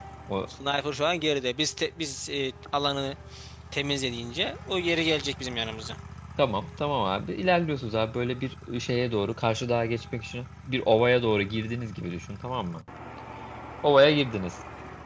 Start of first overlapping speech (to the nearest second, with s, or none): none